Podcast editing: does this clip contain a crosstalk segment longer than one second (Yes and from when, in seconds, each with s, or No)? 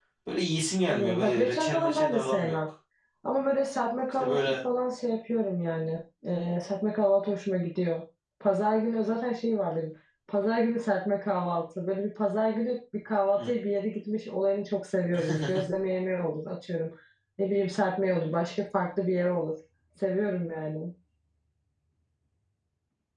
Yes, from 0.9 s